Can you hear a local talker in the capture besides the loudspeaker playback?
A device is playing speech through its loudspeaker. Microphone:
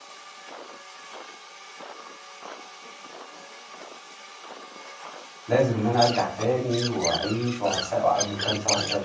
Yes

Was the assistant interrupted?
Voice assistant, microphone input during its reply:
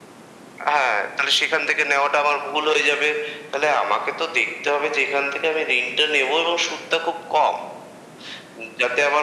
No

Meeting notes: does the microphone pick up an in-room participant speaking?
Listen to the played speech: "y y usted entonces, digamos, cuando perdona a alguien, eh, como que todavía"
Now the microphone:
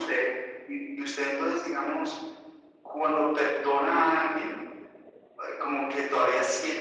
No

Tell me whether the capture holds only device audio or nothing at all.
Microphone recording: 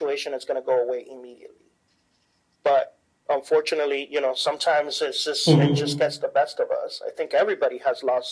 No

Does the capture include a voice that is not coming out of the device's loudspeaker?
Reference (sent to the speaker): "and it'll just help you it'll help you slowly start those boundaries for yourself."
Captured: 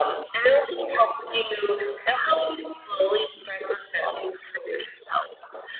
No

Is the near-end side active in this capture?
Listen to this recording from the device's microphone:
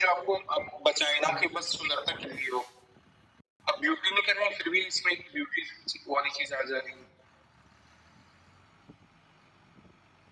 Yes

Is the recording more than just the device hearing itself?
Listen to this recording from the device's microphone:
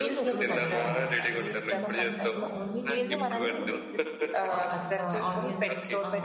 Yes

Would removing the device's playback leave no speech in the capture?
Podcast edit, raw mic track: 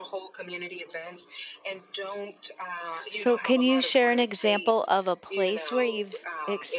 No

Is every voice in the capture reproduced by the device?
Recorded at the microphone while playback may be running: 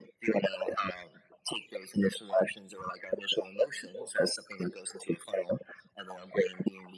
Yes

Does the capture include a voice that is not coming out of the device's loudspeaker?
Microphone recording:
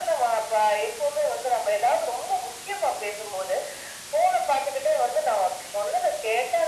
No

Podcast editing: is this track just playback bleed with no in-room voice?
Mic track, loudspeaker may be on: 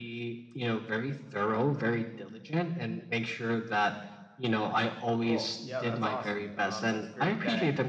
No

